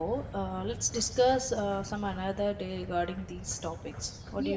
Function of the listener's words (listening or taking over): taking over